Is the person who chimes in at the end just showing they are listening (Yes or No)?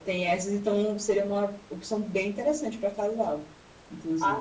No